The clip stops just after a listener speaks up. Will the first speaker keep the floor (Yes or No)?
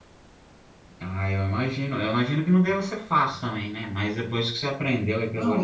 No